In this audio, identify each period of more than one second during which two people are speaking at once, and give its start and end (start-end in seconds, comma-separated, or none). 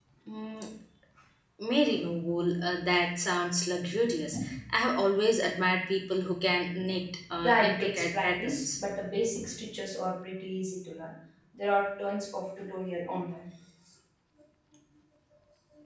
7.4-8.8